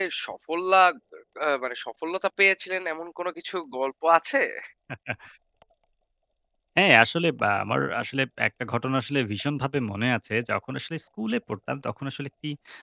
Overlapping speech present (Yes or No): No